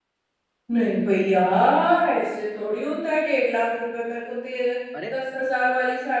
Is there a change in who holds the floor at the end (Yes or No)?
No